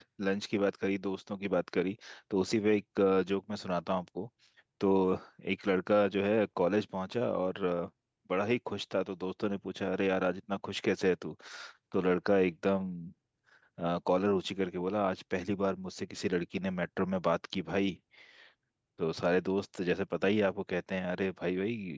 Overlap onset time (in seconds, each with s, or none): none